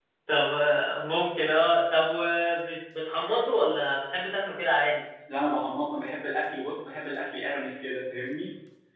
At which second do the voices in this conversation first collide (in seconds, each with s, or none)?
none